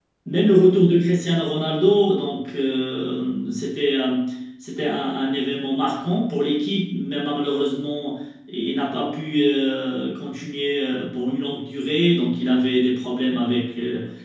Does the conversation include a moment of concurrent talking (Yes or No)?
No